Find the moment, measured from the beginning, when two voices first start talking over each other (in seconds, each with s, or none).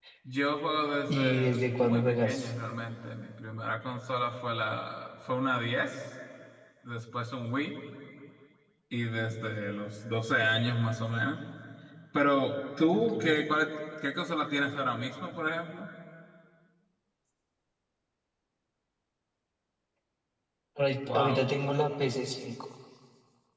1.1 s